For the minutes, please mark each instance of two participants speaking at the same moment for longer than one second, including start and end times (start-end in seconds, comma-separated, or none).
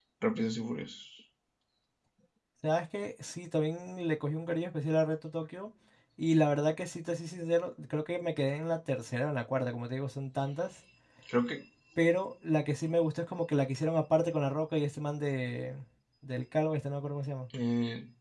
none